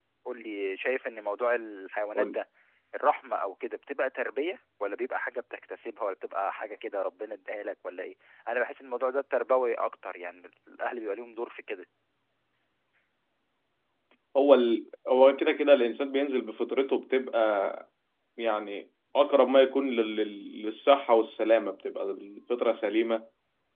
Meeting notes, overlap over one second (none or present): none